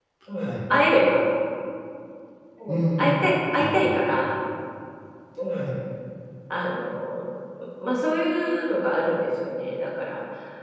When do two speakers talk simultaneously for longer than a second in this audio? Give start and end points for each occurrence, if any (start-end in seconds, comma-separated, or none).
2.7-4.0